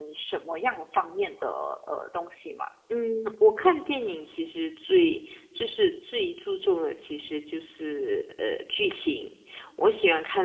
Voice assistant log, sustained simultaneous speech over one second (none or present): none